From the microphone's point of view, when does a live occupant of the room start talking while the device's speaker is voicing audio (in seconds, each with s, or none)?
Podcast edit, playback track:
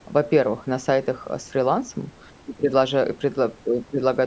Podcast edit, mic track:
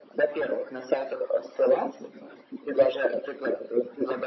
none